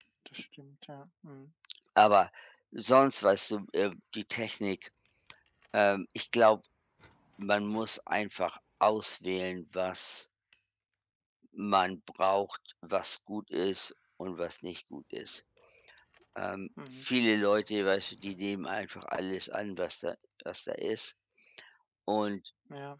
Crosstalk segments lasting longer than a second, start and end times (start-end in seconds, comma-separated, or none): none